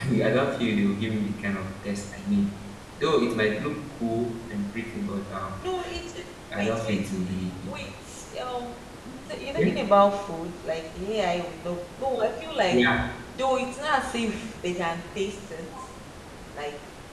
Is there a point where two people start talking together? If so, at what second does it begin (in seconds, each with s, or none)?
6.5 s